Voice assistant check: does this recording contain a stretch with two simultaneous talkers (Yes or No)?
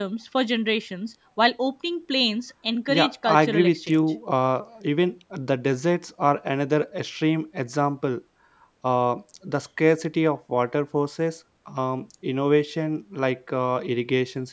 Yes